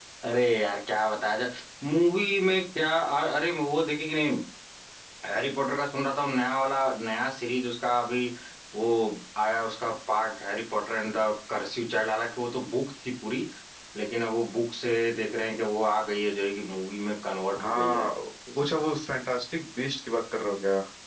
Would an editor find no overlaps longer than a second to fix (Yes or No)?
Yes